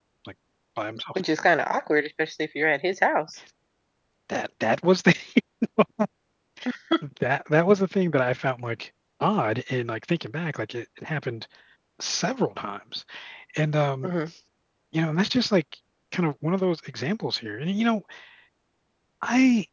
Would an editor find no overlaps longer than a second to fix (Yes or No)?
Yes